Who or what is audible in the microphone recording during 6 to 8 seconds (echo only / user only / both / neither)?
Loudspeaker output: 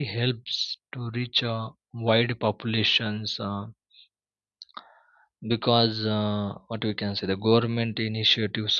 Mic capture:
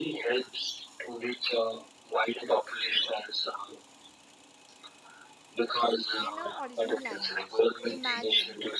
both